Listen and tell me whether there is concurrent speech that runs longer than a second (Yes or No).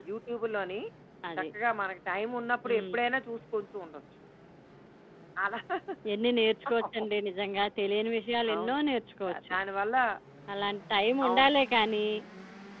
No